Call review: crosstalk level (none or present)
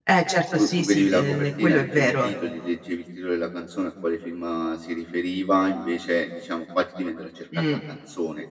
present